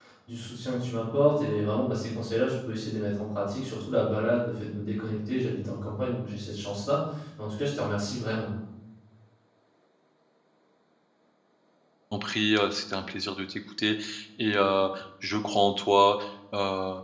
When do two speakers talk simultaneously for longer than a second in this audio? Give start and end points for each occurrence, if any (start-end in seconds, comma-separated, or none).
none